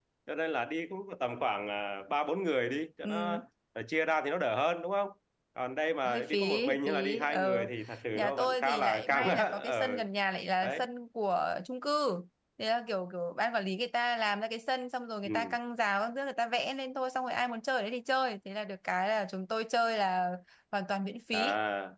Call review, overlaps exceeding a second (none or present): present